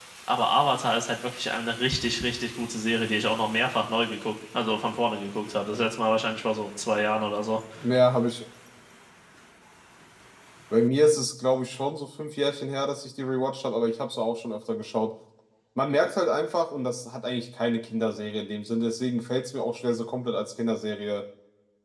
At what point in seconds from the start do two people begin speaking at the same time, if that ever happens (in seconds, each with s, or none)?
none